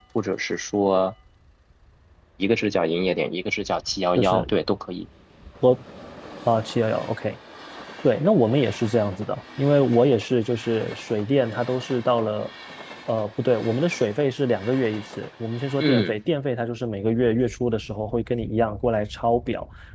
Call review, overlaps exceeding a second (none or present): none